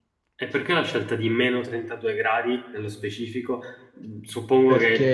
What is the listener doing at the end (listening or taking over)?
listening